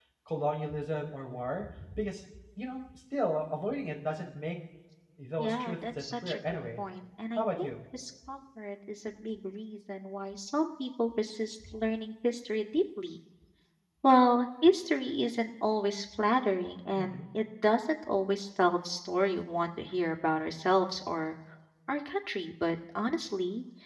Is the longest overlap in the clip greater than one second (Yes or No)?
Yes